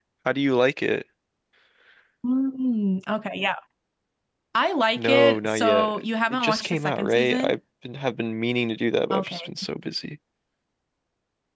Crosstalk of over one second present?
Yes, from 5.0 s

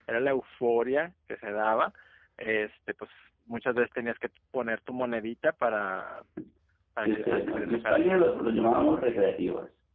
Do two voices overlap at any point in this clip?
Yes, from 7.0 s

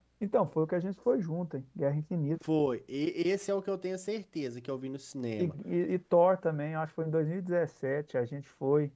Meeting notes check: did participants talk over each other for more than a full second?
No

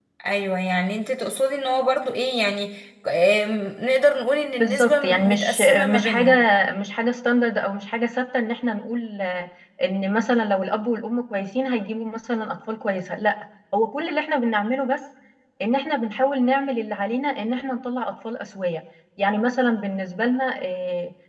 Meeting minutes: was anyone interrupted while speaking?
Yes, from 4.6 s

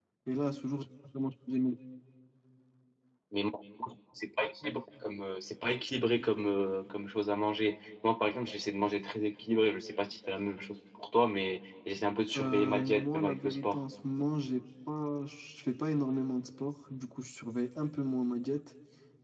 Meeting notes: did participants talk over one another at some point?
Yes, from 12.4 s

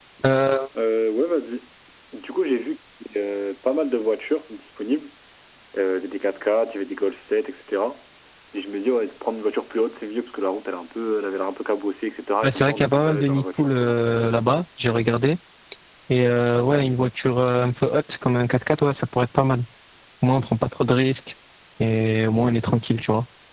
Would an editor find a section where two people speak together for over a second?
Yes, from 12.4 s

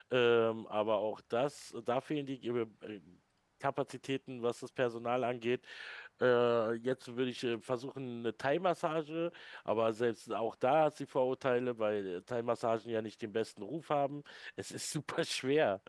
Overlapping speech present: No

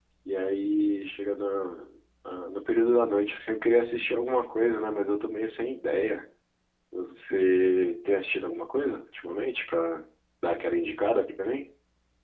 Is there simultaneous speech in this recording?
No

